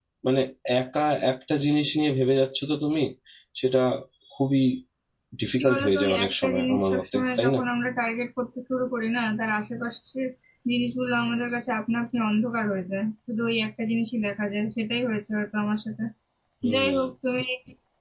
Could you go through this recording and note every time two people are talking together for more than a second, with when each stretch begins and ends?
5.6-7.6

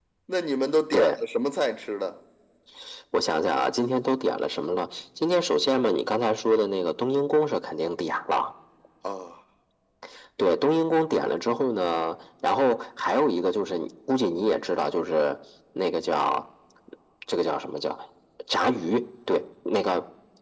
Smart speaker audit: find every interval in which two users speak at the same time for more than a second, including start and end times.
none

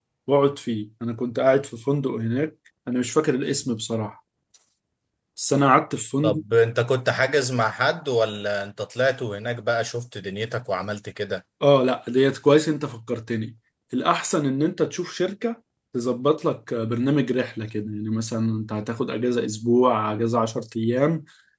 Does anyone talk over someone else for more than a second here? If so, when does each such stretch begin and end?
none

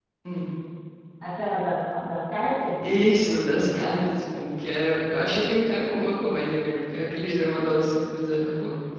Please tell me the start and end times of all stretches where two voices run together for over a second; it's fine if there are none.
none

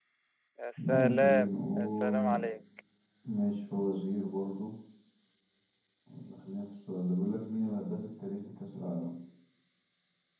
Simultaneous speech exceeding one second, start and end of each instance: 0.9-2.4

